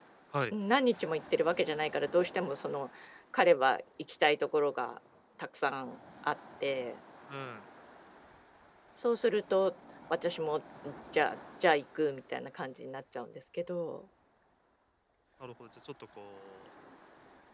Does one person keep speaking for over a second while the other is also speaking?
No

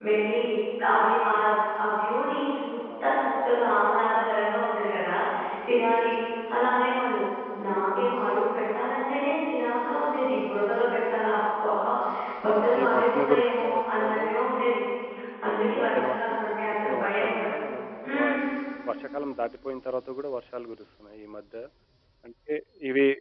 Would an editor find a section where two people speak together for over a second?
Yes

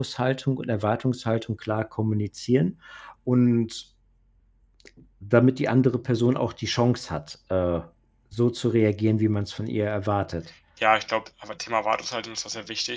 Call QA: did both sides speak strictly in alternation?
Yes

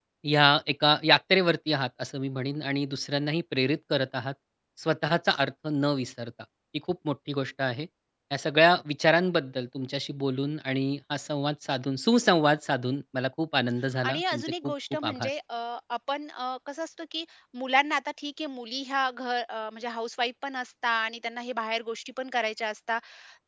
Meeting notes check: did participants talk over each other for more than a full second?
Yes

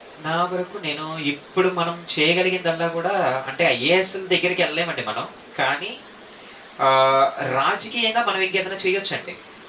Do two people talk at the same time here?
No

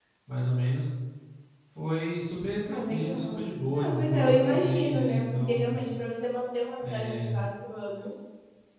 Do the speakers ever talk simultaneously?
Yes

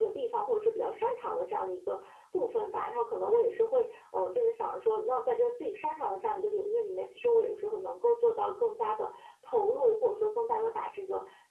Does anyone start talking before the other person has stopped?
No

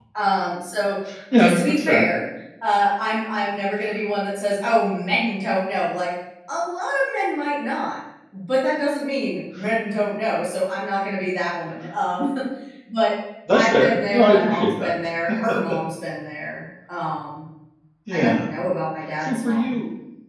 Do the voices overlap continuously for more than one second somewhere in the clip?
Yes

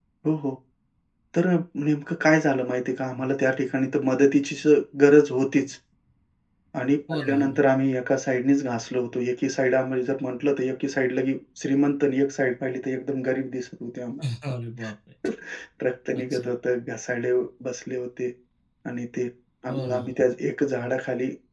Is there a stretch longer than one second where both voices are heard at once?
No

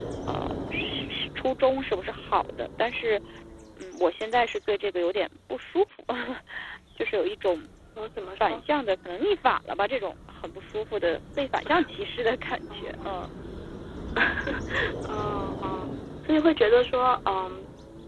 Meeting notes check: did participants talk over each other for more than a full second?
No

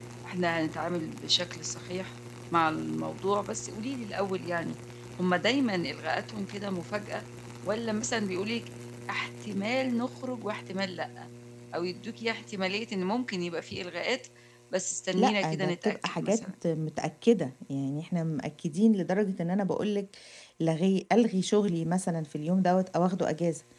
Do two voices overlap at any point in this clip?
Yes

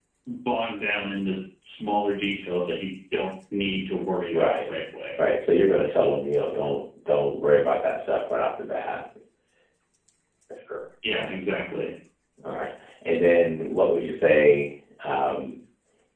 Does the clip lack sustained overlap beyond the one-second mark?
Yes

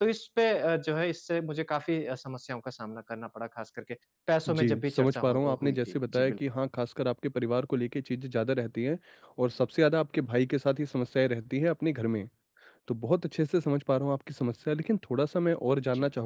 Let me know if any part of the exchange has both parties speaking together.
Yes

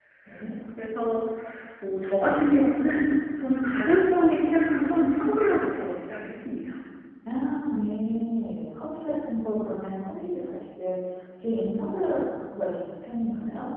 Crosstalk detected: No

